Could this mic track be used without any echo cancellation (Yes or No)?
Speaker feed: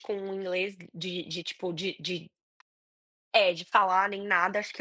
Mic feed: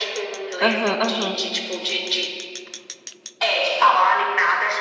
No